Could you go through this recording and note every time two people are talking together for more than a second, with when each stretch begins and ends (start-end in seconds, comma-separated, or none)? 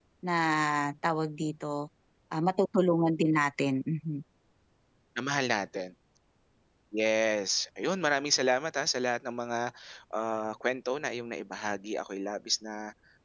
none